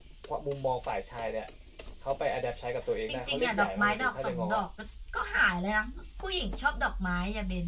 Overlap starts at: 3 s

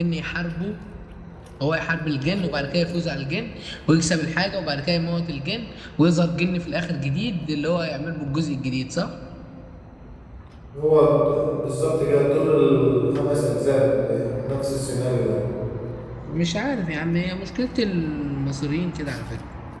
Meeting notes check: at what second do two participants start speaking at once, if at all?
none

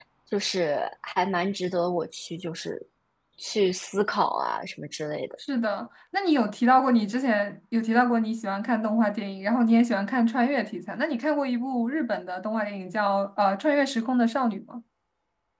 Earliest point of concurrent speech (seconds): none

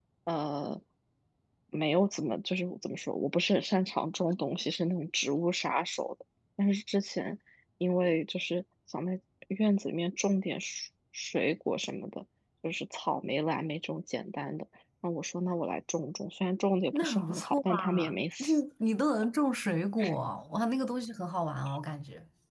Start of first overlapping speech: 17 s

